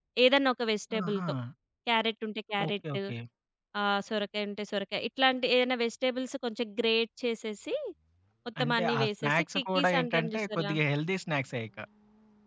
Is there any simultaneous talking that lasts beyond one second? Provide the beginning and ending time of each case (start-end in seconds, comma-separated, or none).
8.6-10.7